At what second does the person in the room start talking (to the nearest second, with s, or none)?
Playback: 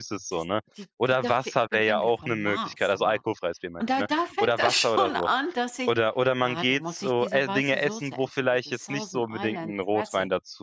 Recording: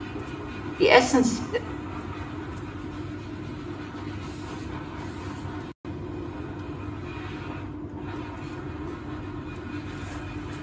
1 s